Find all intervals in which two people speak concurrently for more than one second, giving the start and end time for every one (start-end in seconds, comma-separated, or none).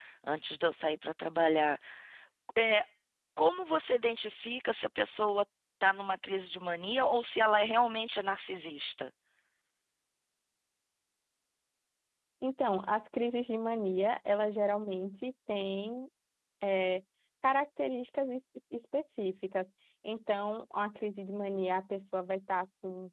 none